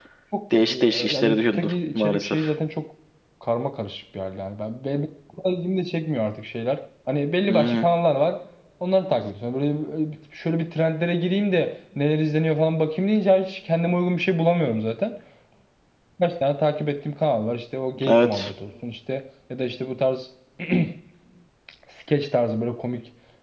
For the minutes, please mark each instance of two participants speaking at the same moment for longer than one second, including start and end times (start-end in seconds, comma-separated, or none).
0.6-2.4